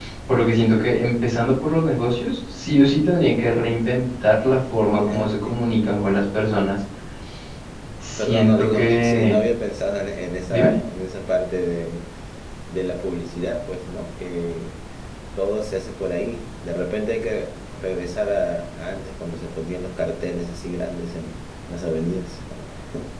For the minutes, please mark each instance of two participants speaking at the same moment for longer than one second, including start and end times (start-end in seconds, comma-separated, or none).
8.2-9.4